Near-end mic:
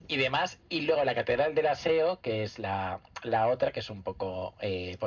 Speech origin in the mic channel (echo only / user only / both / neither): echo only